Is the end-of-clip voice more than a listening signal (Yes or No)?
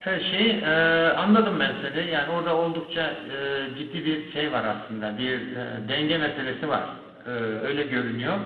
No